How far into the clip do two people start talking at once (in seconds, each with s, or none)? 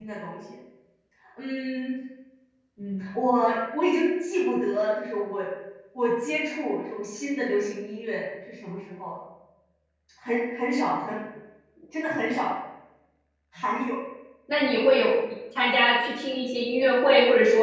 none